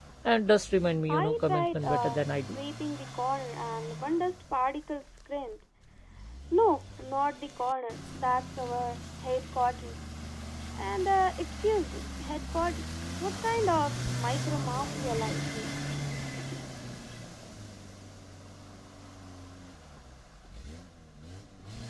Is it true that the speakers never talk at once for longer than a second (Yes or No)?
No